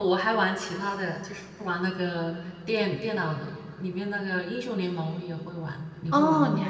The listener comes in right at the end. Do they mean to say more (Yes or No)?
Yes